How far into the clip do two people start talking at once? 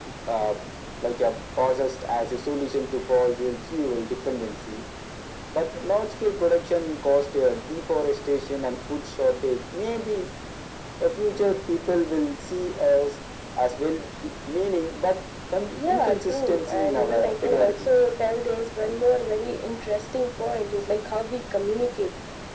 15.7 s

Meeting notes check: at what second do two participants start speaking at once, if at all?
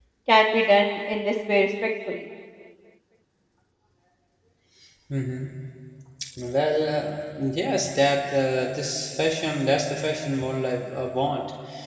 none

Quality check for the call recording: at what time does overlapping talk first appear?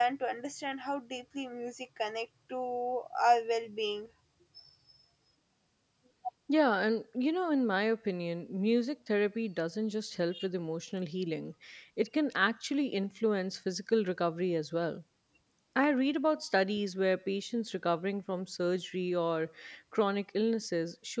none

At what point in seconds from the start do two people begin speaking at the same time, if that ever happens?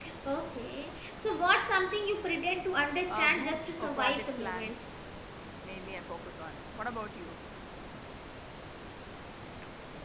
3.1 s

